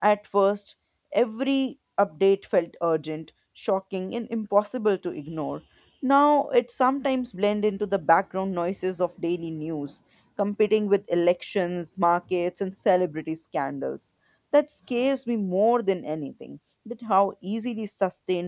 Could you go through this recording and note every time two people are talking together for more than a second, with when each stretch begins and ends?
none

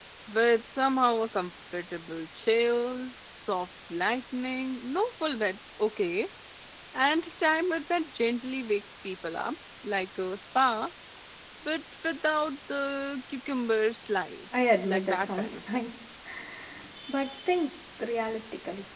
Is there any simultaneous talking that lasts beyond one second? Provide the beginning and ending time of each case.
14.5-15.9

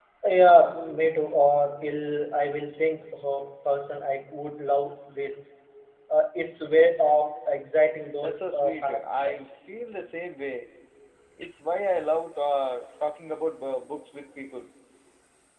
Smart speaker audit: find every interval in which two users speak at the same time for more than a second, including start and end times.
8.2-9.5

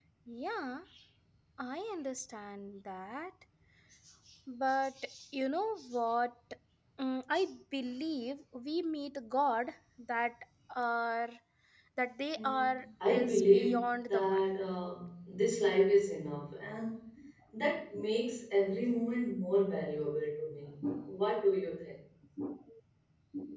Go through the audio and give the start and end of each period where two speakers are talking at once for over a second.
12.4-14.5

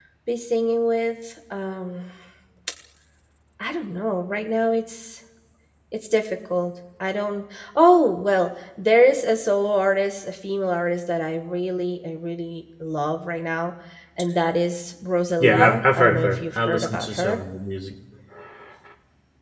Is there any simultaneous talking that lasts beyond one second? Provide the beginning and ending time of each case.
15.4-17.4

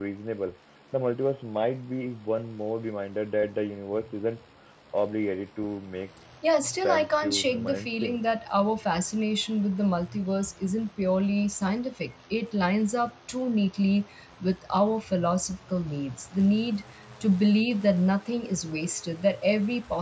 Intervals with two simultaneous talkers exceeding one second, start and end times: 6.8-8.2

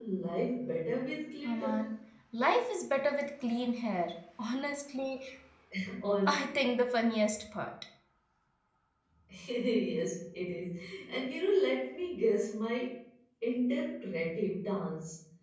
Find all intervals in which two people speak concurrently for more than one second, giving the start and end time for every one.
none

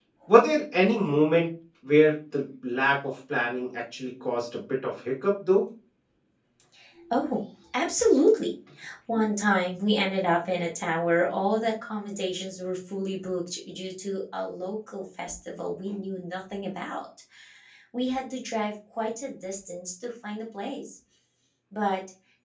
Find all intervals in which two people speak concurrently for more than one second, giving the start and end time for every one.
none

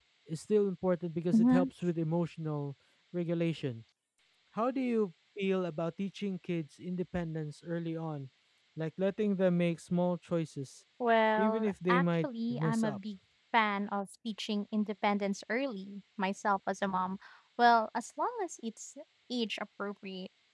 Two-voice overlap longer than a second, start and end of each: 11.4-13.0

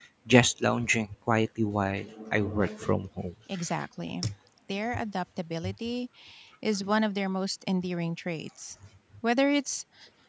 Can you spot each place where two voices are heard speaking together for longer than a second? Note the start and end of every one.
none

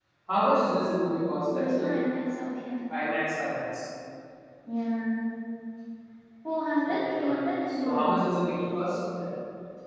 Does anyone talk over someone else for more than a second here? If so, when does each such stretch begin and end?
6.8-8.2

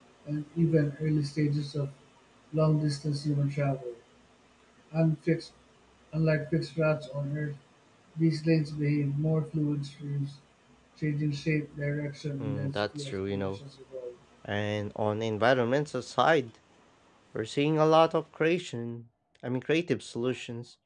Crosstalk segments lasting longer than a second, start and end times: 12.4-13.6

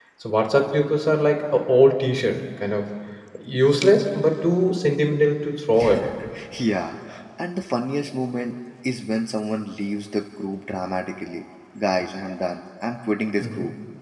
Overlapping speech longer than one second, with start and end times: none

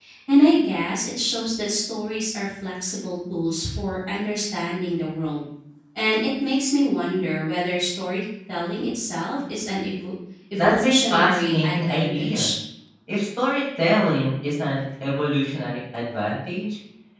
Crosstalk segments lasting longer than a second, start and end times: 10.6-12.5

